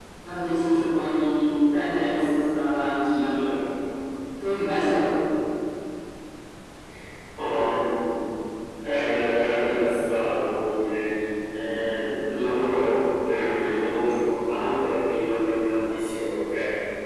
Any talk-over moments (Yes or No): No